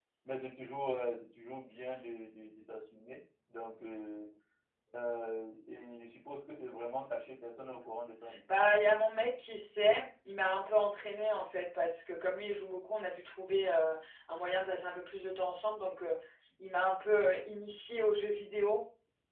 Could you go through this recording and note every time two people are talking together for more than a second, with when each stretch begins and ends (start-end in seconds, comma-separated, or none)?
none